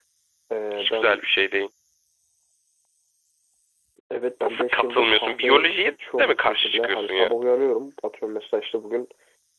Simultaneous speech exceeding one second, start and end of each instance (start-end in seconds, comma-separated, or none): 4.4-7.3